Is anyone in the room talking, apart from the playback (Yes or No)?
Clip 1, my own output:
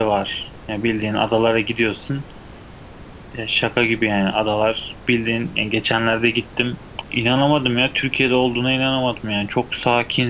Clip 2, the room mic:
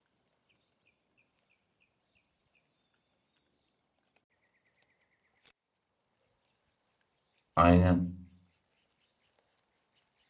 Yes